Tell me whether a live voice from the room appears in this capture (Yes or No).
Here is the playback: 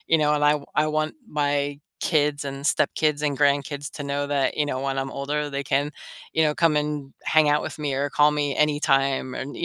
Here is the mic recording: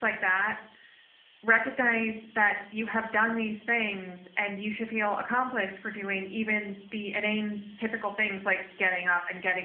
Yes